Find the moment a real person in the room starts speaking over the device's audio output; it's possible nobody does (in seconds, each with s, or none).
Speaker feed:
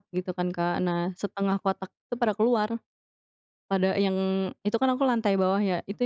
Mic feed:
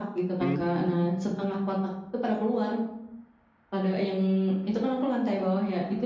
0.4 s